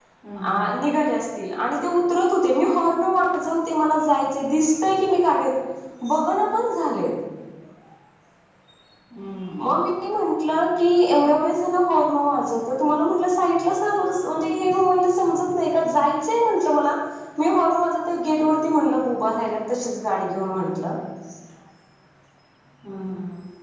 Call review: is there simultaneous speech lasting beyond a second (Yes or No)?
No